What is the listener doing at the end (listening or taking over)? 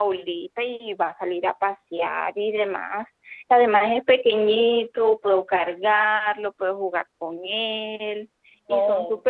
taking over